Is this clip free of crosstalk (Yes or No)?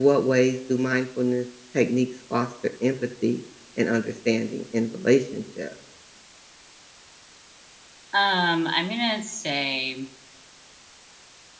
Yes